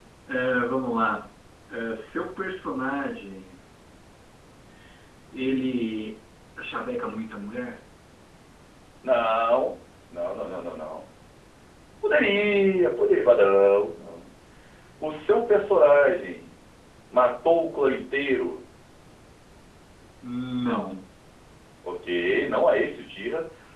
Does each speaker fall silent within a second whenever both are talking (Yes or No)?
Yes